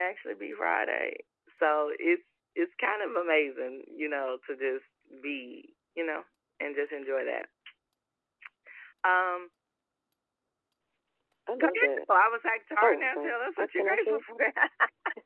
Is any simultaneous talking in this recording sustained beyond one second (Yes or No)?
Yes